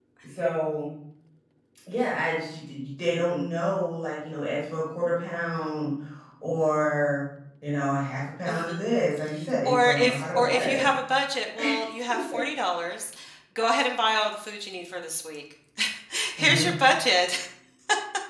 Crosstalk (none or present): present